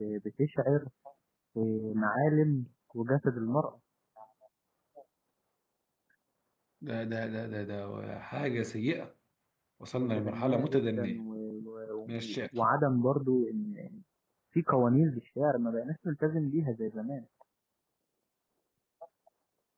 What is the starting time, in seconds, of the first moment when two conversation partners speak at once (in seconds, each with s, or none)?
9.9 s